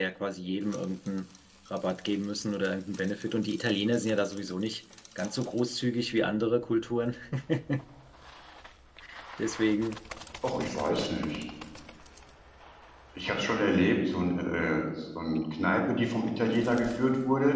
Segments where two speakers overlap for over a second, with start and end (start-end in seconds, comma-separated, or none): none